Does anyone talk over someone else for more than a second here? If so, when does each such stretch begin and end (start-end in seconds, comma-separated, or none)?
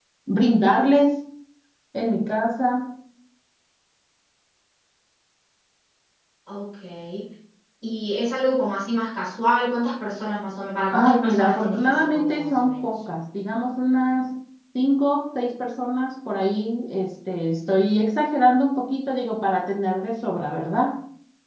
10.9-12.8